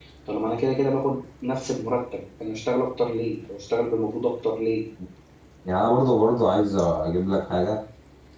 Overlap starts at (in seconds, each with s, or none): none